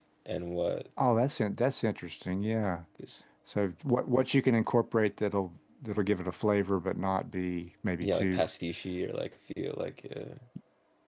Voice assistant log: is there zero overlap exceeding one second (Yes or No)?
Yes